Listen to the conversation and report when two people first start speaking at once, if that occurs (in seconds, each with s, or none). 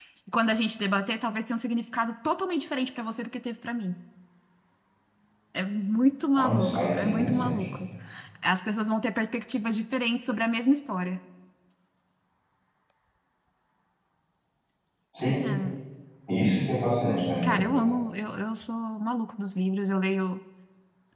6.3 s